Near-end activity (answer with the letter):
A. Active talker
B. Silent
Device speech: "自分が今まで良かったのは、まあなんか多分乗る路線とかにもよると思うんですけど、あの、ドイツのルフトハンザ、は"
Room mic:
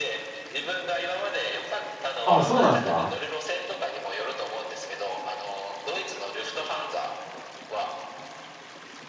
A